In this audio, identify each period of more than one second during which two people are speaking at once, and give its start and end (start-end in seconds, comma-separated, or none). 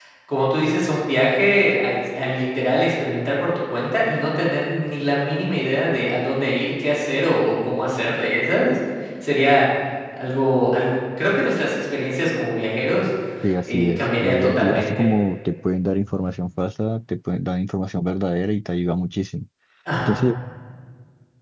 13.6-15.1